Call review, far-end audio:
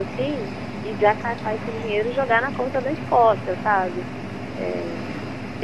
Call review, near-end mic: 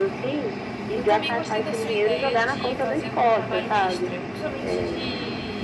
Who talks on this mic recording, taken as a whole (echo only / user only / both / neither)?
both